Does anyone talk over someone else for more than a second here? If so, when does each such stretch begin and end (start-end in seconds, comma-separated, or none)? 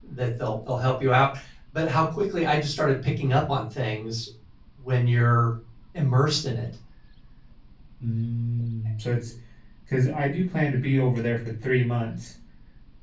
none